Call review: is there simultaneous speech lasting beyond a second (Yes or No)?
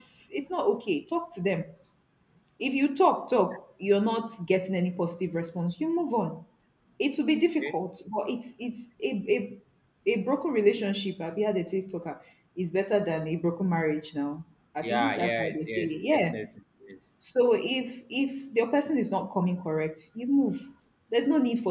Yes